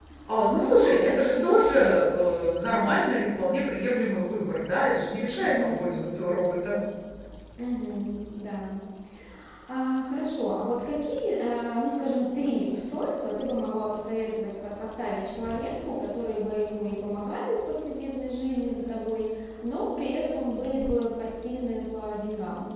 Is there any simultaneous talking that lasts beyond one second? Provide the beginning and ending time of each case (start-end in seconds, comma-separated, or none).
0.6-1.9